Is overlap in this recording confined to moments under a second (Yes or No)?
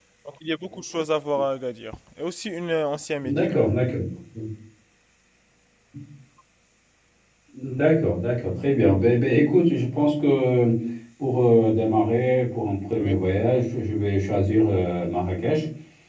Yes